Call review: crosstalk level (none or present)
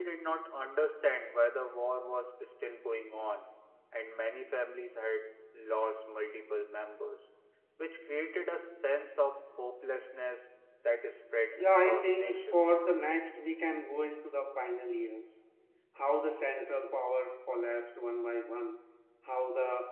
present